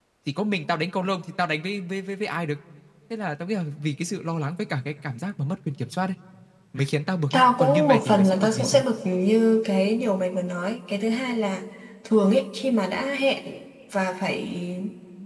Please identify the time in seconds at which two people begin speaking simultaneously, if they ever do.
7.3 s

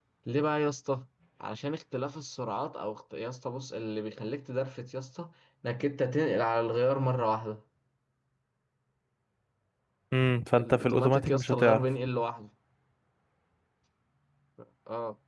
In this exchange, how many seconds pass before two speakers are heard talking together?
10.6 s

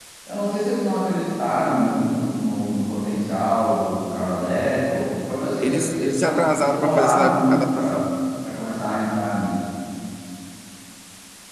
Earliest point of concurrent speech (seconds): 5.6 s

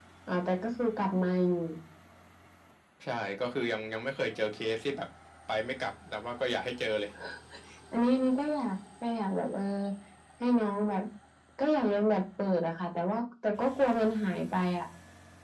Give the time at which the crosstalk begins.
none

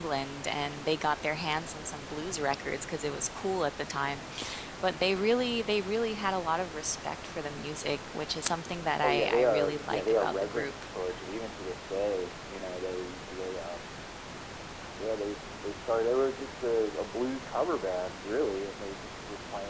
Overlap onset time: 9.0 s

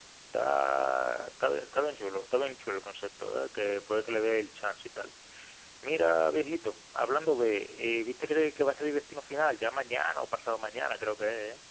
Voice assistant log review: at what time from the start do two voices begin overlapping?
none

